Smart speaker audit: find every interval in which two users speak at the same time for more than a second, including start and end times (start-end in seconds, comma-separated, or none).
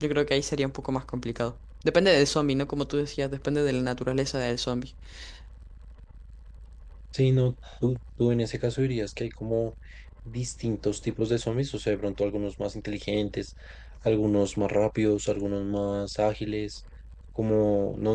none